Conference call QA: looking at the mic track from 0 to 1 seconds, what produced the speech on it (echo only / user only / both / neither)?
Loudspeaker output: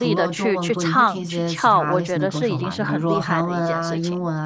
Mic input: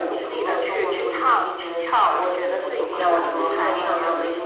echo only